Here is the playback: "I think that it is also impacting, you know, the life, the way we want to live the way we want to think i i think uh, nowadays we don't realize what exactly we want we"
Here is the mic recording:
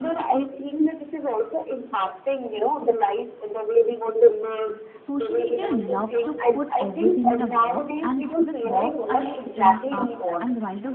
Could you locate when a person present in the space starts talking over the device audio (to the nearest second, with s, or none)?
5 s